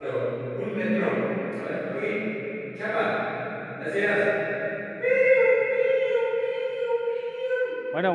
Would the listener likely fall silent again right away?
No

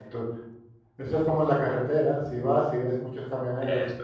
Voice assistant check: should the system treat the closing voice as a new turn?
No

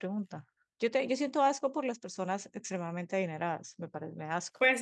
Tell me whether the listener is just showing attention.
No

